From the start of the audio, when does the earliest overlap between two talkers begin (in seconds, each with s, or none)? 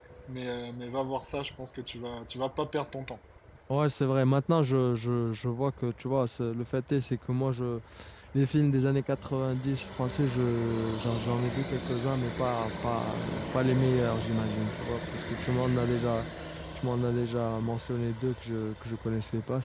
none